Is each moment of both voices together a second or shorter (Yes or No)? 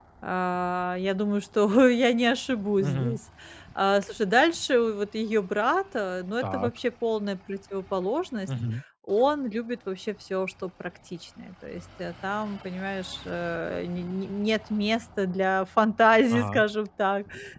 Yes